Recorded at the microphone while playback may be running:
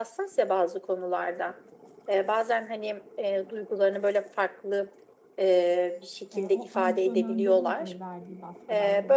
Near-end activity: present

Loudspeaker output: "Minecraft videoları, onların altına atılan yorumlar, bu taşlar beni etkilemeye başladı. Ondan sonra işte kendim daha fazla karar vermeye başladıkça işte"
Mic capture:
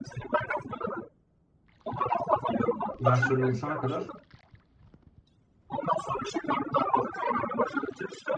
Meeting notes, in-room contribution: present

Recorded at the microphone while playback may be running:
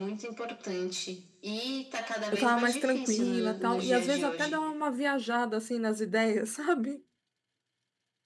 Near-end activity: present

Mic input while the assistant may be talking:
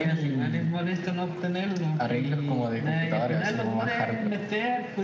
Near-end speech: none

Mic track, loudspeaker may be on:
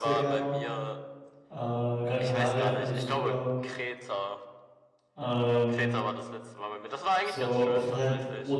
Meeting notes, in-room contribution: present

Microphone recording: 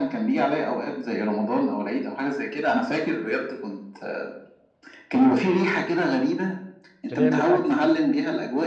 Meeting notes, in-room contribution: present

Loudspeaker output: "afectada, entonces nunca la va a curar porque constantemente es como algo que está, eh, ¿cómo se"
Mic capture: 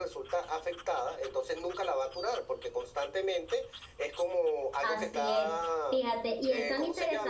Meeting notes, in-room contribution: present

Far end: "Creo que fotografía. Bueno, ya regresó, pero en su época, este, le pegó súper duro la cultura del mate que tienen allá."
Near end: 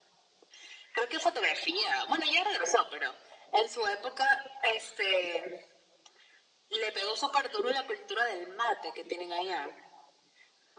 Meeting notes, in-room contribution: none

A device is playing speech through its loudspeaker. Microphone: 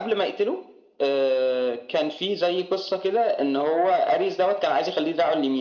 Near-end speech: none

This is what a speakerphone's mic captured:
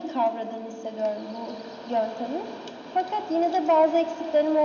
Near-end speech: none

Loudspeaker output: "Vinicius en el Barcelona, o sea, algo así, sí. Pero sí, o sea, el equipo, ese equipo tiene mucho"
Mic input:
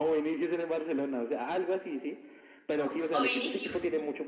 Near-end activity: present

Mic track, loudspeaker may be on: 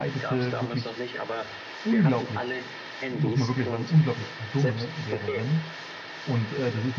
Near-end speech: present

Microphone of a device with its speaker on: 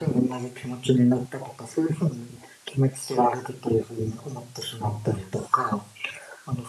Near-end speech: none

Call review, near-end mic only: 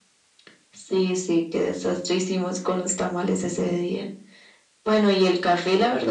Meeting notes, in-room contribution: none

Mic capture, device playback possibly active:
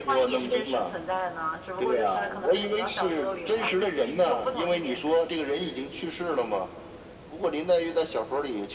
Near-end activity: none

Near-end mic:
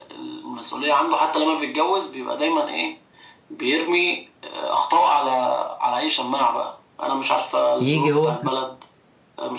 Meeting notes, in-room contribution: present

